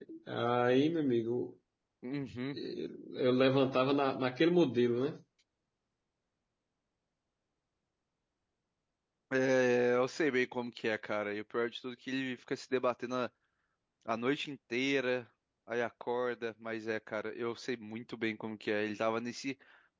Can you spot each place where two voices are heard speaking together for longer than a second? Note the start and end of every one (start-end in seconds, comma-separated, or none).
none